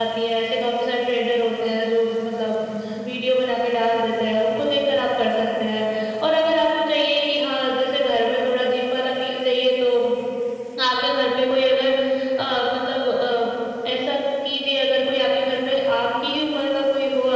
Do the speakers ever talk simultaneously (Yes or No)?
No